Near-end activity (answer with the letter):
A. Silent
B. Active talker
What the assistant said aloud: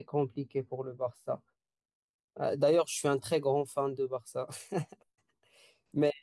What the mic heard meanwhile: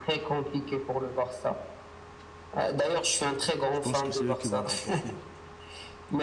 B